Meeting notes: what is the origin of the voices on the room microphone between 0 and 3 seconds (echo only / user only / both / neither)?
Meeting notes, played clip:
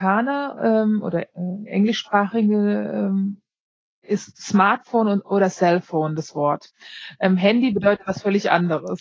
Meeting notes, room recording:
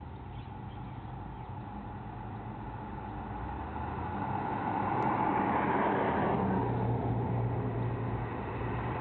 neither